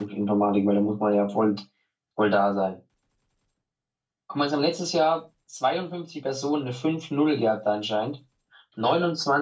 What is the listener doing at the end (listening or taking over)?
listening